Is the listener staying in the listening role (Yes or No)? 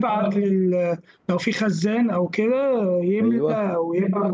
Yes